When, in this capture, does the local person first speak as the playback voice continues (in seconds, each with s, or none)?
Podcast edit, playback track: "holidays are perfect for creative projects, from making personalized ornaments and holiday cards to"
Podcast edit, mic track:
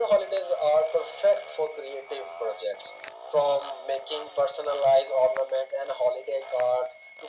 none